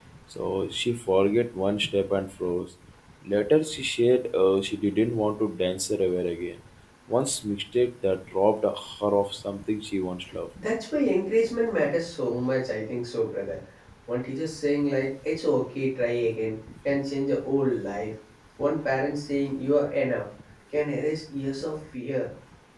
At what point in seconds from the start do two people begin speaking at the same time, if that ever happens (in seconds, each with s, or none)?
none